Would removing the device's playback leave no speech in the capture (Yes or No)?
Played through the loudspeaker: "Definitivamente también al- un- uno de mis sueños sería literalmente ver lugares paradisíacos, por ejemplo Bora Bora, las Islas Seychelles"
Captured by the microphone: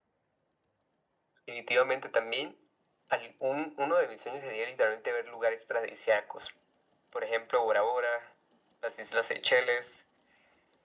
Yes